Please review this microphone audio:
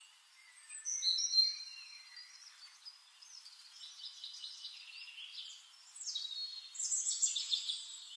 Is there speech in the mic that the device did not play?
No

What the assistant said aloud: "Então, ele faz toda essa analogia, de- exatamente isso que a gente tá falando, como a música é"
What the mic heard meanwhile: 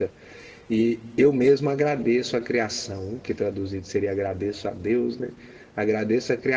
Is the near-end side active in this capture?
Yes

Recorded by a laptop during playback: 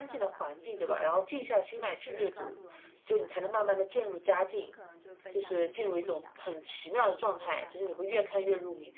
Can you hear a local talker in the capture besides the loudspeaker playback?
Yes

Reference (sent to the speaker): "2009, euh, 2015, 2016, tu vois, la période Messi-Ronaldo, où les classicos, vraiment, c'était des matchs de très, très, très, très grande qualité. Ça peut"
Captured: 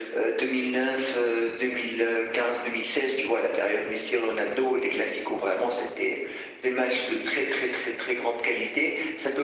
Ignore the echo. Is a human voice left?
No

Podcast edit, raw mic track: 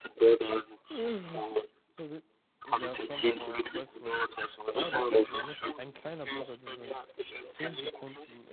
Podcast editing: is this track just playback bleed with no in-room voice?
No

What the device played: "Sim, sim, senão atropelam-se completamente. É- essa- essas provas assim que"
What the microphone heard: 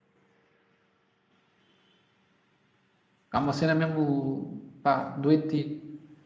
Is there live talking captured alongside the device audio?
Yes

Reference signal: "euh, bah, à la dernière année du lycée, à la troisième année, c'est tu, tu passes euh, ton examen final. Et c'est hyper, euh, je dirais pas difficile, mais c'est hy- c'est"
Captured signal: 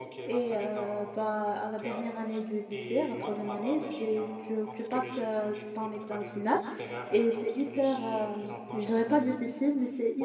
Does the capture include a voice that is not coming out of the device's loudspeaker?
Yes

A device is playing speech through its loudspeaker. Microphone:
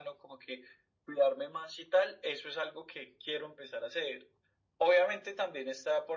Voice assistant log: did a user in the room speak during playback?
No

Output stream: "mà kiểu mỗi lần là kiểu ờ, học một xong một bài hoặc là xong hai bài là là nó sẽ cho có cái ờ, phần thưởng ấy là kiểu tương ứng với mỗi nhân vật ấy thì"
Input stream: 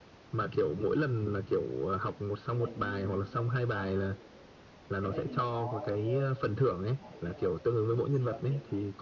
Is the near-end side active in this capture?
Yes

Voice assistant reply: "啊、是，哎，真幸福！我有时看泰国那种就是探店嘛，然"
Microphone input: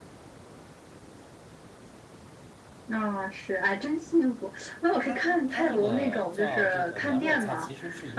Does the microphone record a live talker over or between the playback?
Yes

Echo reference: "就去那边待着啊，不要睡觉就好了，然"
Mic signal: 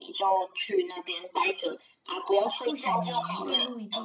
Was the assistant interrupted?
Yes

